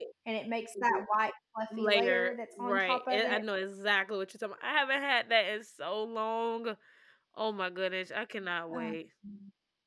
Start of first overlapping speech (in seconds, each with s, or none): 1.7 s